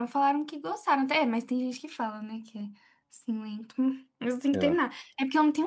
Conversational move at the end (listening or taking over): listening